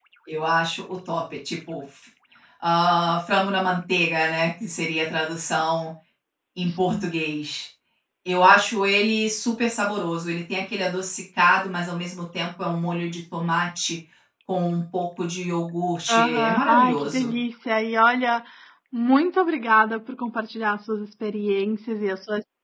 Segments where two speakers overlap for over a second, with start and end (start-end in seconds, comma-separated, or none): 16.1-17.4